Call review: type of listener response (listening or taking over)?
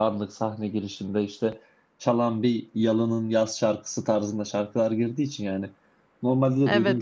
listening